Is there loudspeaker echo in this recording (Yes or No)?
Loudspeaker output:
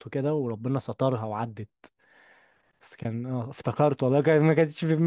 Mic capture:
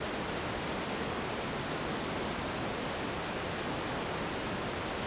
No